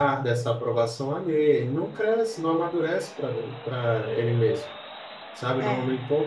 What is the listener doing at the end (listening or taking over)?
listening